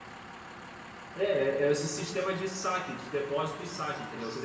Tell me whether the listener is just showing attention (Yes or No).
No